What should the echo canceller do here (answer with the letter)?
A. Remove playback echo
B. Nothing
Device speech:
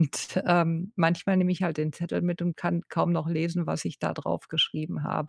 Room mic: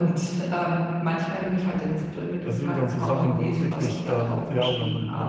A